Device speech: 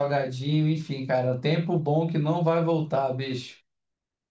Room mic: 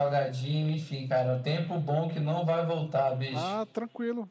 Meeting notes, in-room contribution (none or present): present